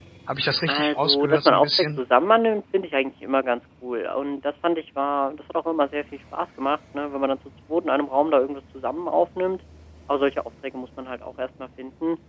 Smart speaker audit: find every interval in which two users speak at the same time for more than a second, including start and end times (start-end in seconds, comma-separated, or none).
0.7-2.0